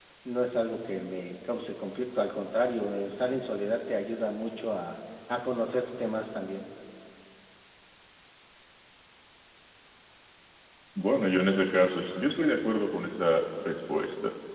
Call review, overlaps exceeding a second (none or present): none